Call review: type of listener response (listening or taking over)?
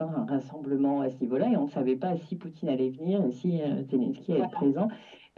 listening